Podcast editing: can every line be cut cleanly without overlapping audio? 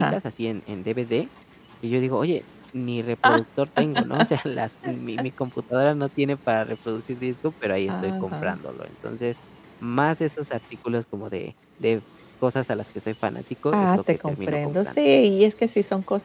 No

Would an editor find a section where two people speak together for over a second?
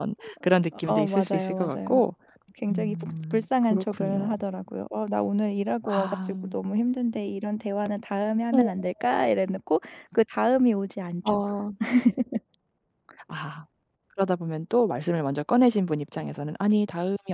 Yes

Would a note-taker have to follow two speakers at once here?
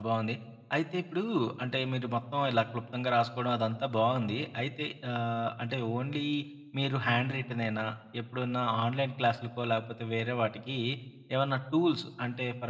No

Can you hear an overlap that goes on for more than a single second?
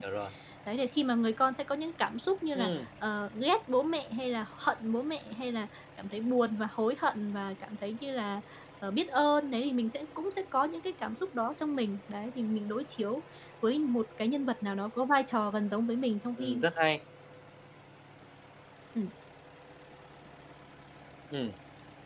No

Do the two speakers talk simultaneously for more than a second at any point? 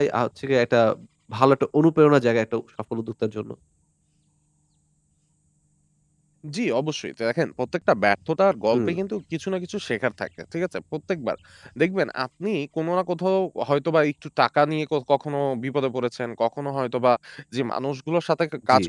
No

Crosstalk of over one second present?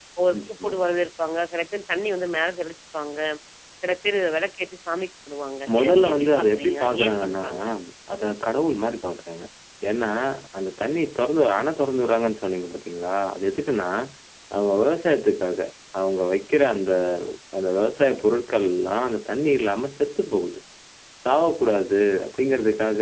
Yes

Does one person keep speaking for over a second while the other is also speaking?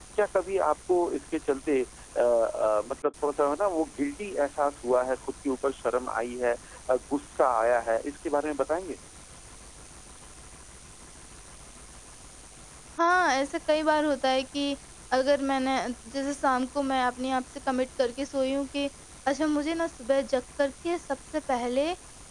No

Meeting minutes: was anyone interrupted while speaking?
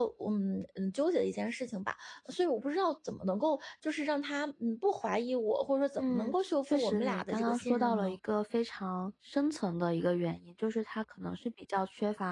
Yes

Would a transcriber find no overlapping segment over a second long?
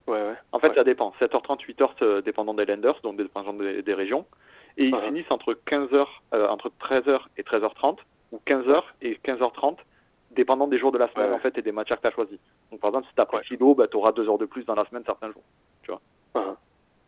Yes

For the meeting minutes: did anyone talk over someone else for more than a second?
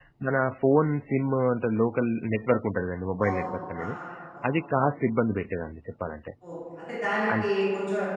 No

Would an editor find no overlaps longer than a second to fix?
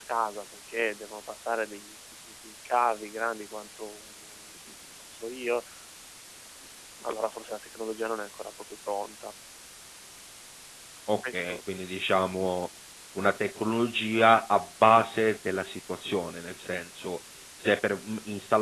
Yes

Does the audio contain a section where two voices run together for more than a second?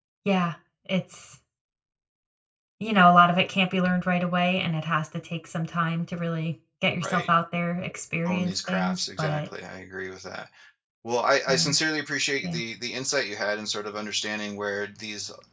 Yes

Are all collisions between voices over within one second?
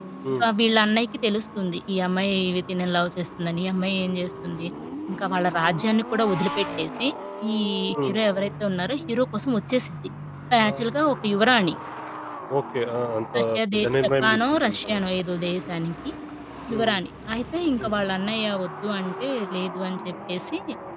No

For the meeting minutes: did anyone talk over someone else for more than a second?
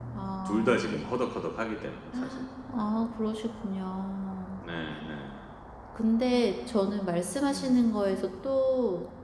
No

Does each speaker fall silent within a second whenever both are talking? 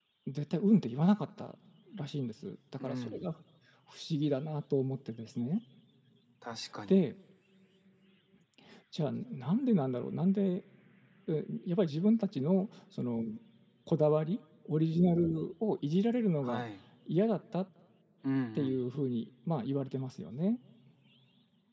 Yes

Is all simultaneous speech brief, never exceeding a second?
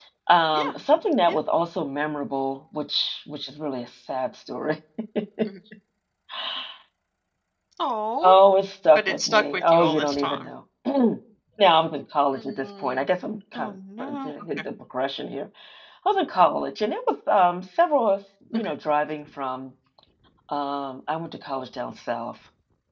No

